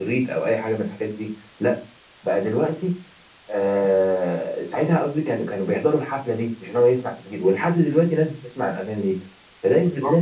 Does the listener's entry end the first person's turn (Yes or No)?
Yes